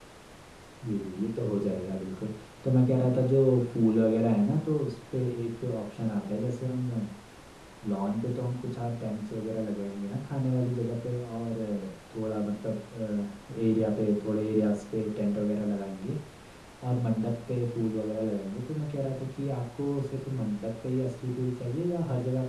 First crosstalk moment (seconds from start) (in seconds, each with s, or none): none